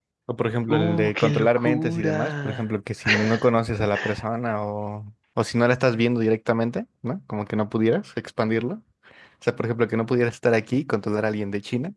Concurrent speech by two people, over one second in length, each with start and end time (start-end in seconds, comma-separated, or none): 0.7-2.6